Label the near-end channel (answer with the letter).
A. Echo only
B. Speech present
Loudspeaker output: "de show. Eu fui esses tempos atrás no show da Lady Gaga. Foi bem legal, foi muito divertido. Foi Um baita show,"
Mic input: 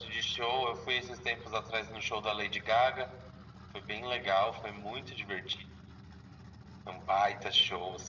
A